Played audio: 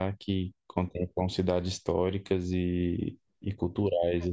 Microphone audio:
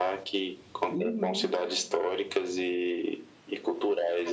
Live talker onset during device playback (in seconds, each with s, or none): 0.8 s